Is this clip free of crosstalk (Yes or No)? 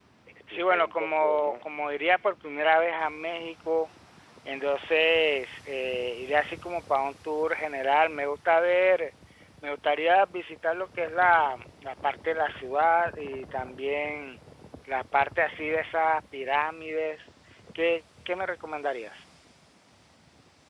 No